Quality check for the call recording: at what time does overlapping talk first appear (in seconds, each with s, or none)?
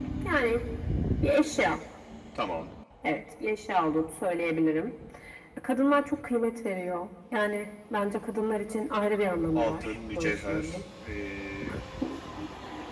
9.6 s